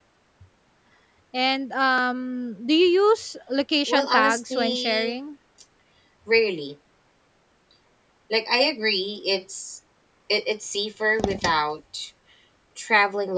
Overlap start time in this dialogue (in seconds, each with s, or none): 3.9 s